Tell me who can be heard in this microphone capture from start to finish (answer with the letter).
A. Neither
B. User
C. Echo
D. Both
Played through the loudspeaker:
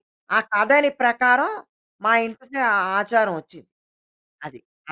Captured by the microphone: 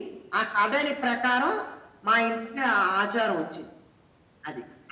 C